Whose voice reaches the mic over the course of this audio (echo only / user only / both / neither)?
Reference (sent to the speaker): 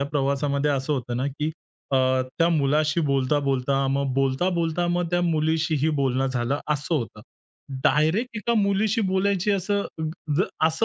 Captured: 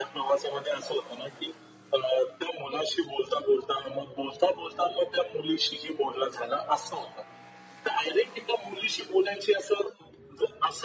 echo only